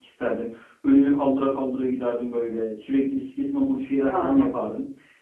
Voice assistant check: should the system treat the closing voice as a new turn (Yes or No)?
No